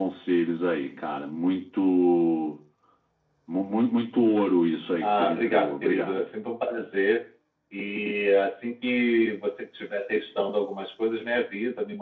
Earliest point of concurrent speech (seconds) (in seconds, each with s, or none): 5.0 s